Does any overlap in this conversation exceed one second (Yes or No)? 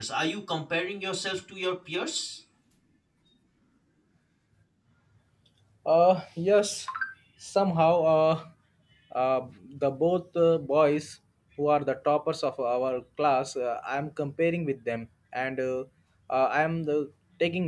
No